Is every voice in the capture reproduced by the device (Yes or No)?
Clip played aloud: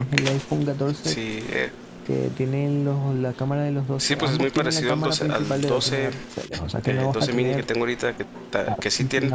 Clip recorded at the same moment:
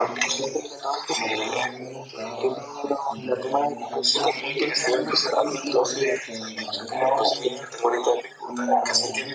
No